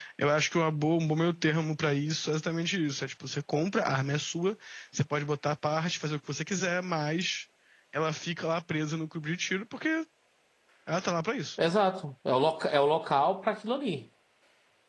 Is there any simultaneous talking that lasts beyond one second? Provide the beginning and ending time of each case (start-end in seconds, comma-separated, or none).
none